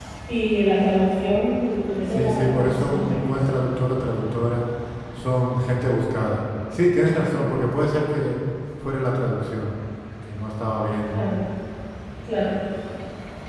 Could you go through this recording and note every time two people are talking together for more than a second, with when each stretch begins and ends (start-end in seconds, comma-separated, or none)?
2.1-3.4